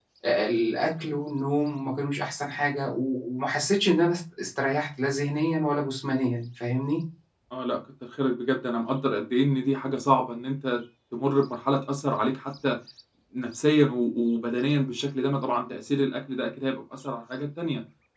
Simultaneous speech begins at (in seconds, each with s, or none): none